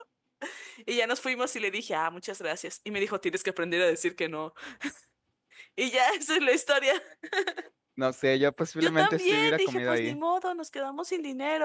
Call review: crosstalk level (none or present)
present